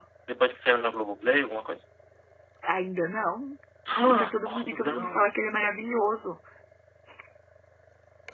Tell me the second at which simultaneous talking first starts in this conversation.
4.1 s

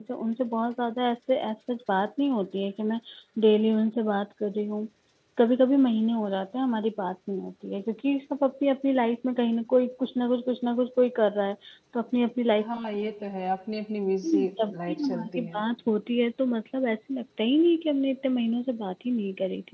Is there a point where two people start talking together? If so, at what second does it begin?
14.2 s

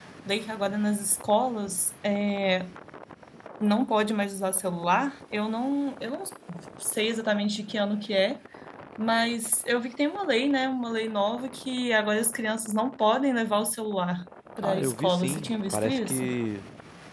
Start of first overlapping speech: 14.6 s

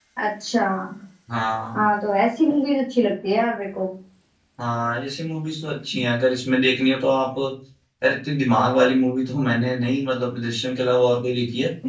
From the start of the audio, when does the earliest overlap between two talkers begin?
none

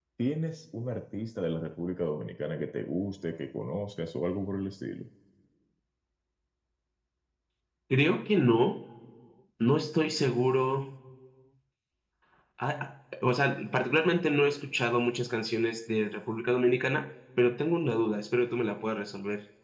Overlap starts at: none

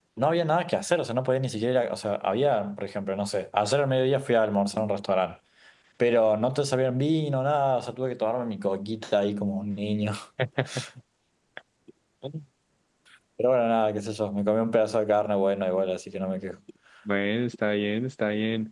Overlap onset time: none

